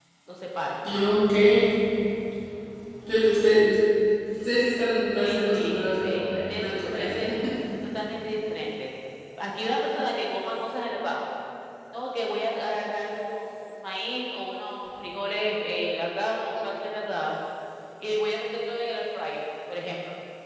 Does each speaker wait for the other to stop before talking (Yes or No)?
No